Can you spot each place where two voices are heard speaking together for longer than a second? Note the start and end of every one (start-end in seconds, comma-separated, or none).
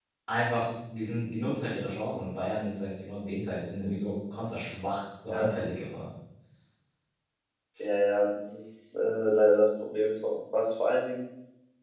none